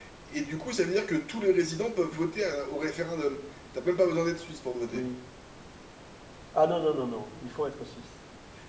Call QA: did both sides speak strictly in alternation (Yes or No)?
Yes